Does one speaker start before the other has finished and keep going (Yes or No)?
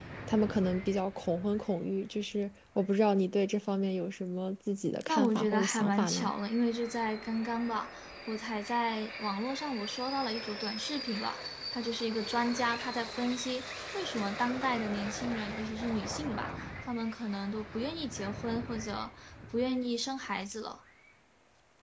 Yes